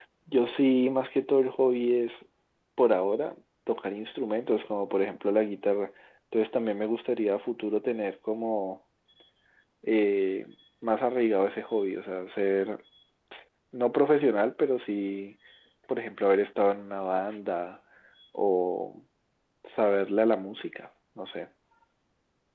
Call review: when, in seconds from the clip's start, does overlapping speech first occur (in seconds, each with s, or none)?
none